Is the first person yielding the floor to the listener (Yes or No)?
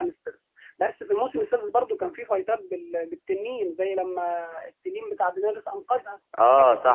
Yes